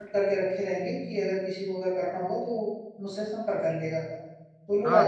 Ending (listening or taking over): taking over